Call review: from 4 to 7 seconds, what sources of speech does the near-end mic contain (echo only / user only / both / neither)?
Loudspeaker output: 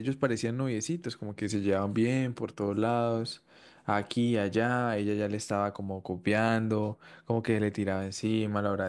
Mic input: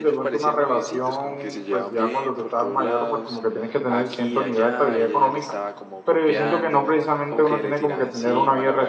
both